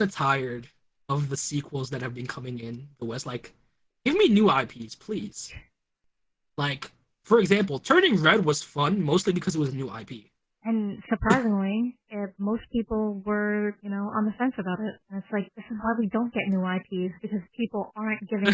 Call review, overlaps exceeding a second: none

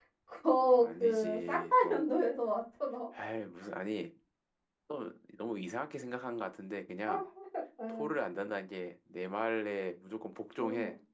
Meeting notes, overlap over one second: present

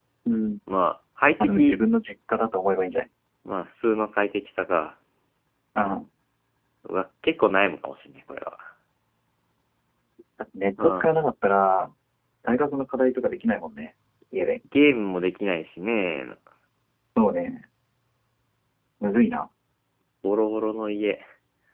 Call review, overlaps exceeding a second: none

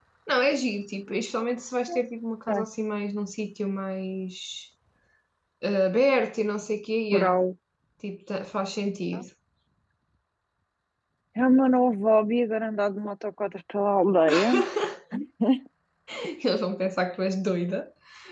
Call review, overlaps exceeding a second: none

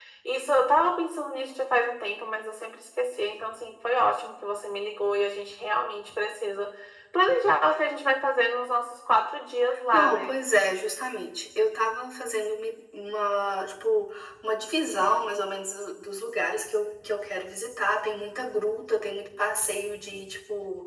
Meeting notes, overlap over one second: none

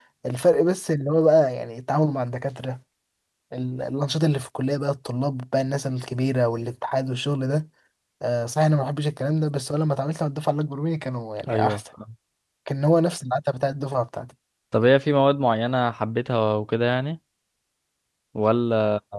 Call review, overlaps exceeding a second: none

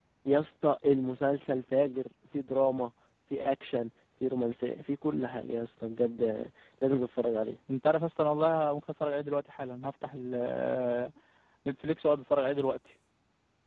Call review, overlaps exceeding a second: none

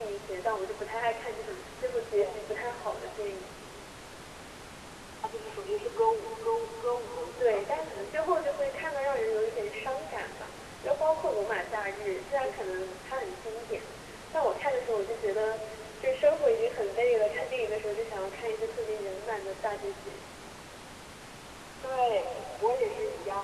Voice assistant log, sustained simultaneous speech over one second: none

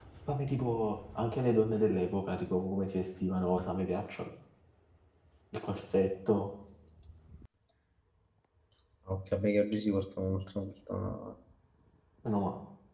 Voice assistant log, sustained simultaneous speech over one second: none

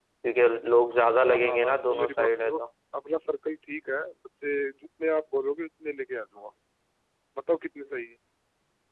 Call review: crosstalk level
present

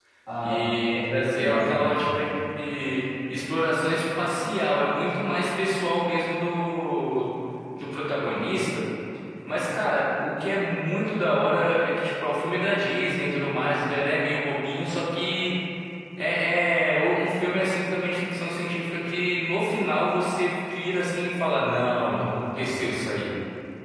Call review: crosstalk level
present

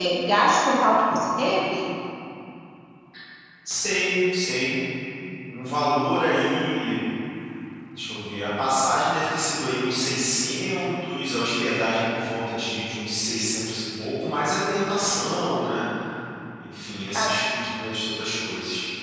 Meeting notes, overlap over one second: none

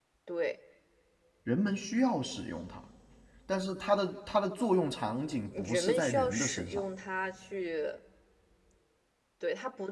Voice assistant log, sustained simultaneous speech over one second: present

